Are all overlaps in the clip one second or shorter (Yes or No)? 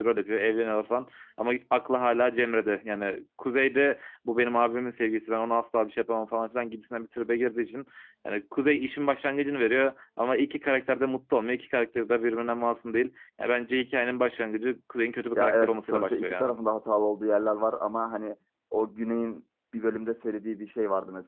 No